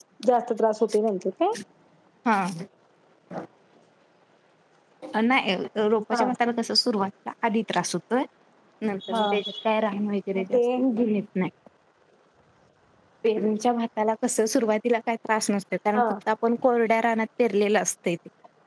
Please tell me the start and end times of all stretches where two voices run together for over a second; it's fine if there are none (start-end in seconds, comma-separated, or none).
none